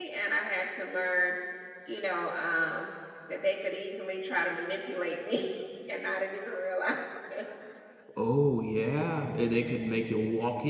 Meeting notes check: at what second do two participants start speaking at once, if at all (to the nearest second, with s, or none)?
none